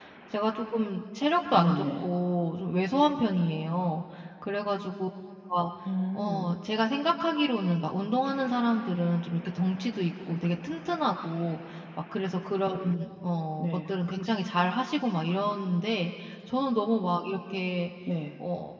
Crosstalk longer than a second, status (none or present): none